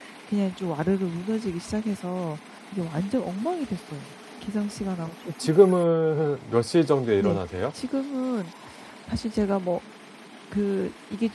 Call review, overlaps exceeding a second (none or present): none